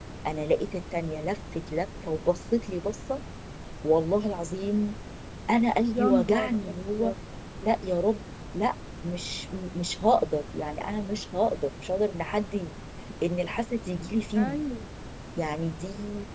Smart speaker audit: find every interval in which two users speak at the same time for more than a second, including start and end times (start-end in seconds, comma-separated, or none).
5.9-7.1